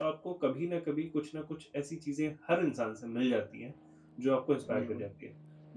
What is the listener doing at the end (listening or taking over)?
listening